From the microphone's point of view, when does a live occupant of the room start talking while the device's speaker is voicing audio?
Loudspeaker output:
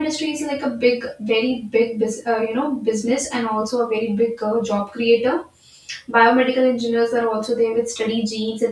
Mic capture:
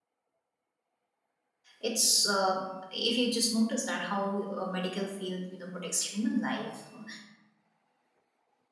1.8 s

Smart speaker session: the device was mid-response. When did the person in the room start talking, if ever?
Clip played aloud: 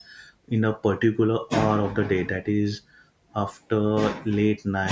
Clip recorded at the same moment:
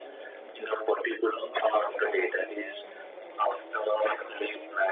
none

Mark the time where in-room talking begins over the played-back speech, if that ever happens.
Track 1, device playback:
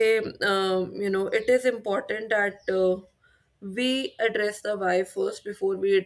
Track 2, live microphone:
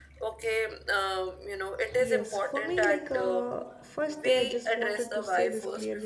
2.0 s

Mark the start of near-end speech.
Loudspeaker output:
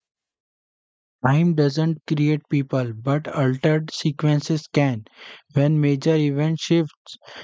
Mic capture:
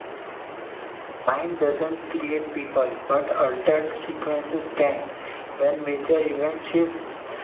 none

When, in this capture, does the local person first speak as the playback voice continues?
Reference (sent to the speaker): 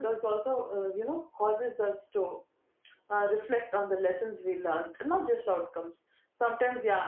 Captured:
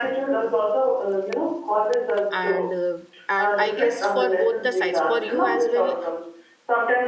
2.3 s

